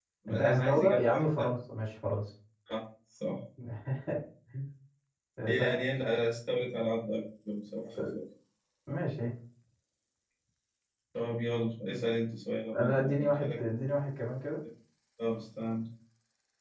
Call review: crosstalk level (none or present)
present